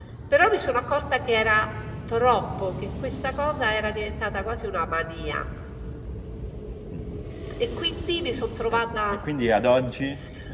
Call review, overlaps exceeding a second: none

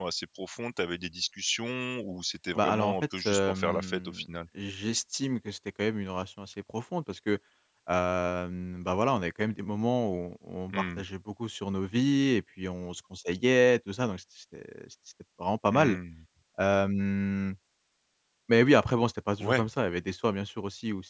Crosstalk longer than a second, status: present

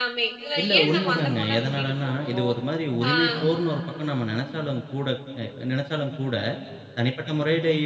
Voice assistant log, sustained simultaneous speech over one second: present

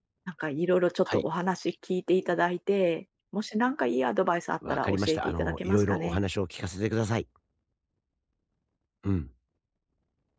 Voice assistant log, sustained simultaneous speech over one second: present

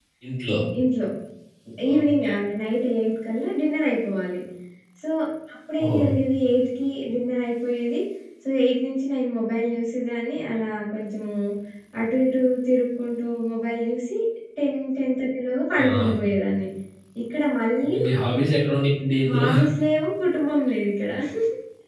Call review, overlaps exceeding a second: none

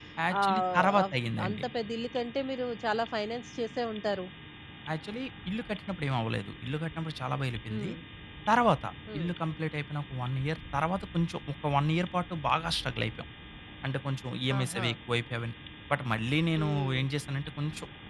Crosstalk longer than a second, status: present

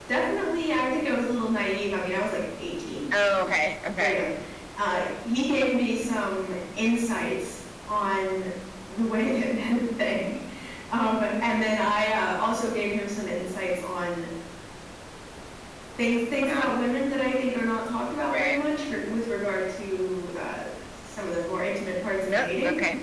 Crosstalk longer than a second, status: none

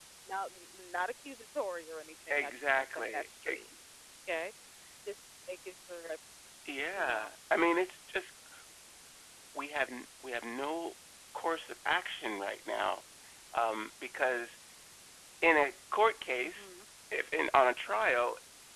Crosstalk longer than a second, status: present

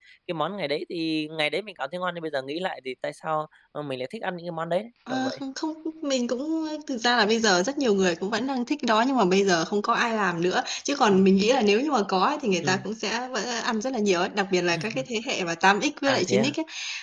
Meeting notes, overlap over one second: none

